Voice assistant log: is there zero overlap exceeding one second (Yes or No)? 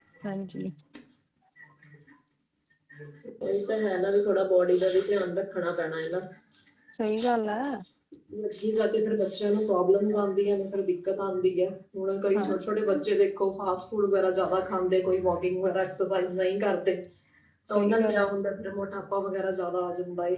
Yes